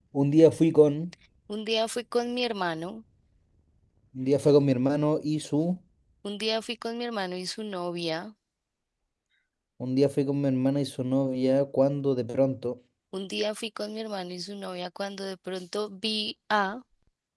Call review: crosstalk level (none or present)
none